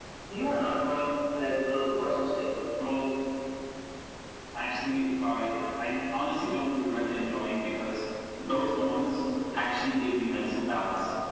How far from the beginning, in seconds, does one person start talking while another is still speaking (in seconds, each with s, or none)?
none